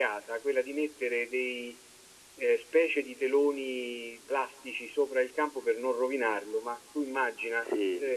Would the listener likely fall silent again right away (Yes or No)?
Yes